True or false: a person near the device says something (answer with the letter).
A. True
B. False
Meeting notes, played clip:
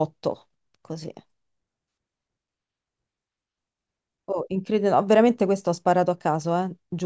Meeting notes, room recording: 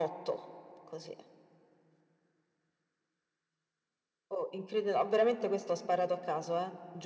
B